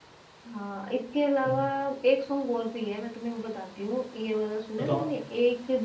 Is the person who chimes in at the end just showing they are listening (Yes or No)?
Yes